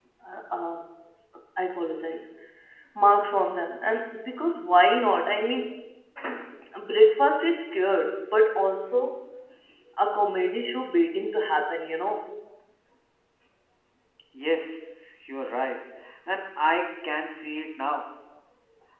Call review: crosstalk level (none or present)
none